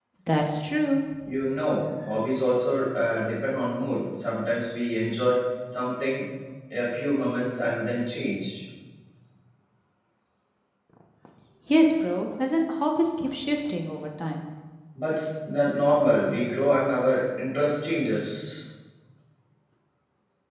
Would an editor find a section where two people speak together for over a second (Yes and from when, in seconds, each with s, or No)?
No